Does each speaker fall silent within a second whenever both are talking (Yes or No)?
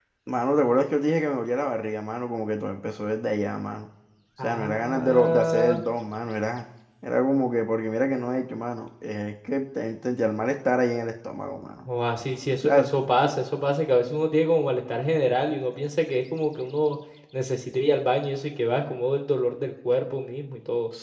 No